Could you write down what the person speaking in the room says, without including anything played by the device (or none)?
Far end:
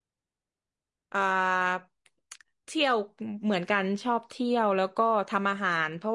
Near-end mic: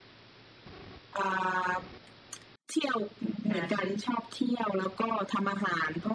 การไป